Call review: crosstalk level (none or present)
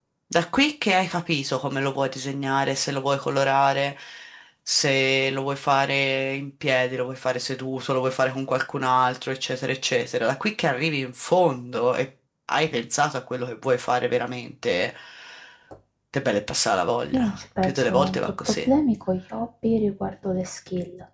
present